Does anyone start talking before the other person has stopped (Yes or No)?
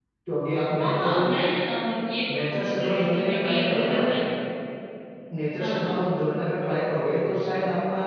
Yes